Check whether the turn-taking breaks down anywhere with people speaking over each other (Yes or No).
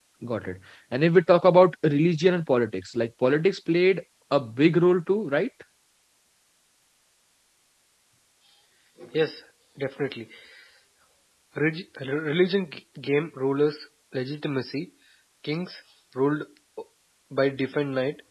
No